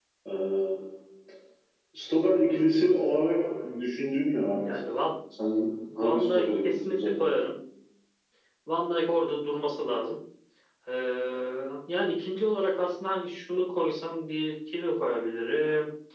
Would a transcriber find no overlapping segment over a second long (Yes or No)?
No